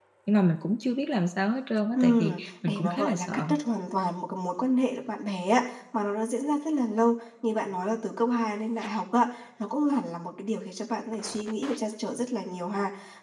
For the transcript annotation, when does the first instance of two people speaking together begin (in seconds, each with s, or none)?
1.9 s